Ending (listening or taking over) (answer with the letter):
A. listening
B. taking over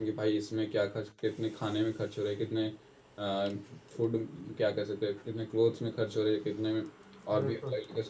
A